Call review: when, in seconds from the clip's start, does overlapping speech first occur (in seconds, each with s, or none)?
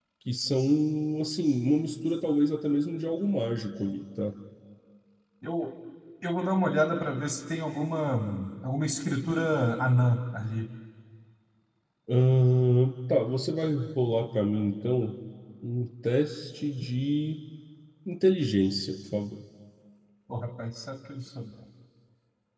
none